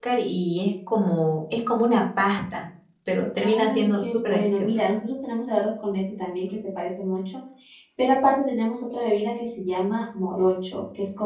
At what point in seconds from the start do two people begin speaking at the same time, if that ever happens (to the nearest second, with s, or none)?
3 s